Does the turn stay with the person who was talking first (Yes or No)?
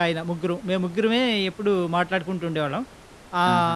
Yes